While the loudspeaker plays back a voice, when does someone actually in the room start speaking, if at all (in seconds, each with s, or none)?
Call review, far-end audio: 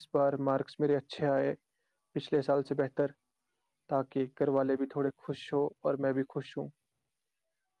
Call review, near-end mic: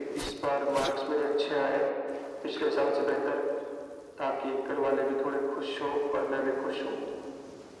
none